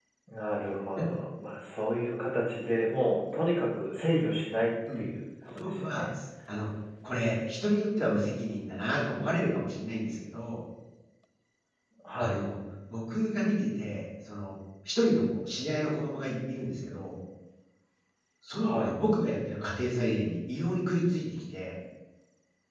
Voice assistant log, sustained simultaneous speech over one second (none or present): none